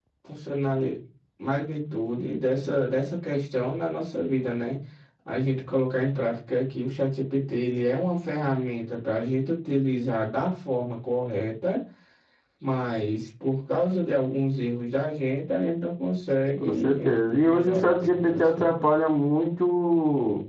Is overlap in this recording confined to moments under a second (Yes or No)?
No